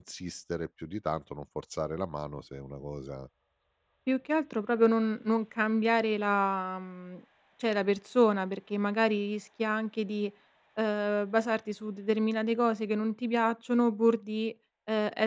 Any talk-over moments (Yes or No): No